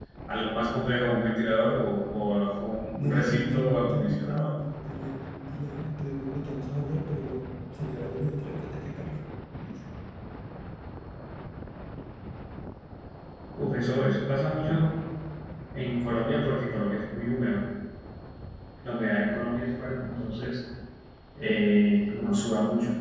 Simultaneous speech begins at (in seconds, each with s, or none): 2.9 s